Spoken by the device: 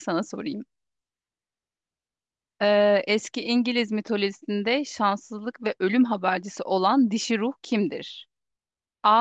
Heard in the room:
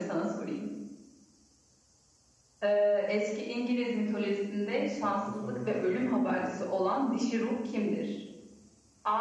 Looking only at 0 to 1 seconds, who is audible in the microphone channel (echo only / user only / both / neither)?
echo only